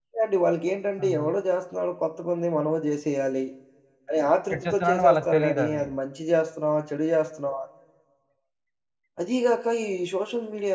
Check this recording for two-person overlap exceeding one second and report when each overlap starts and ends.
4.5-5.8

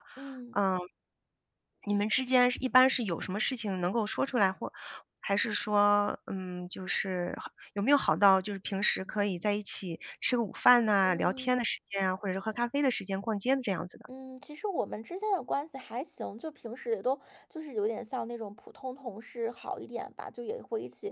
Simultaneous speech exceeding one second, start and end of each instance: none

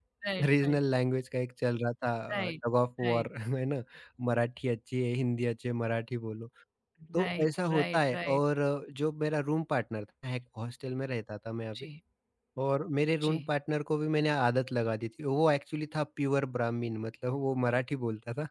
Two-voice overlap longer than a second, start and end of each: 7.2-8.4

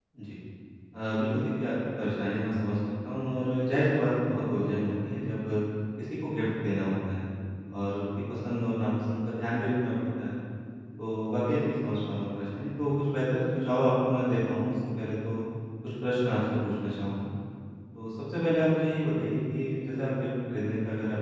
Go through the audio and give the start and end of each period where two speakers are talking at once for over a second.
none

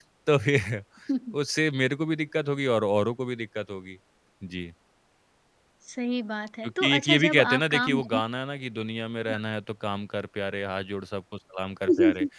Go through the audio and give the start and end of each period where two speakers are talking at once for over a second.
6.6-8.2

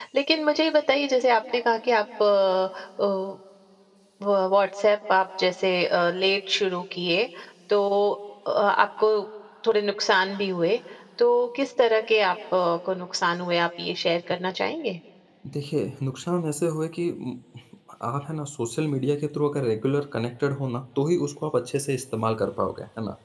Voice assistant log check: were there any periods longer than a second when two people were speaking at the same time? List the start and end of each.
none

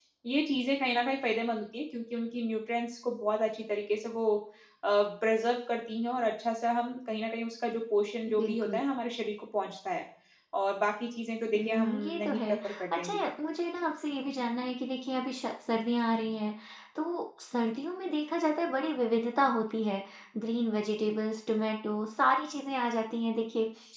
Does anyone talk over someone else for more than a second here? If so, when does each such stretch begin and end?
11.5-13.2

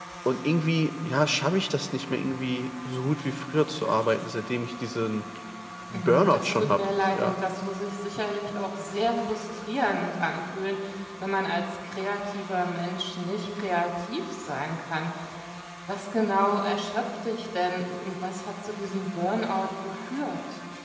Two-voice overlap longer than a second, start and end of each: 5.9-7.3

